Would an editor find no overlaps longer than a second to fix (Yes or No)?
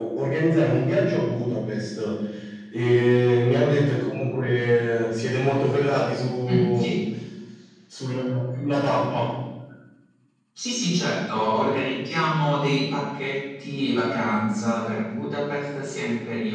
Yes